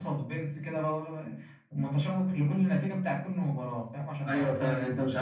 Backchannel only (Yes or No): No